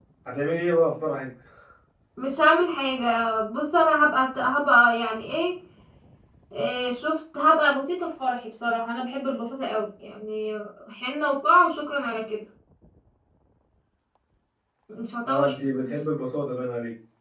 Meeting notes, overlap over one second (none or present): none